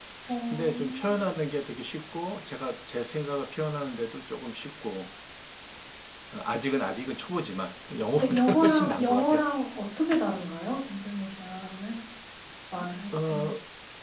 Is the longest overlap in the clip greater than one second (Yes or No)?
Yes